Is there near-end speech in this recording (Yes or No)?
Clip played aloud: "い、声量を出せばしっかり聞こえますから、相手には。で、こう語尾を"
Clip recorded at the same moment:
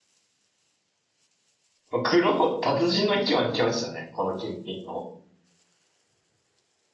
Yes